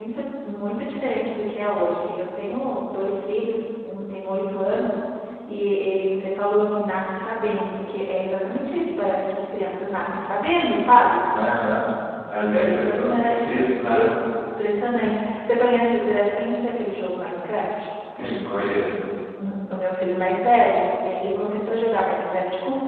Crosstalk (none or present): present